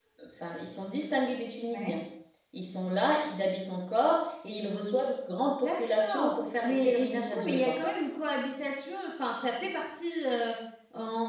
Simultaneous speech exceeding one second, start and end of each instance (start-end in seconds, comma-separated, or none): 5.6-7.8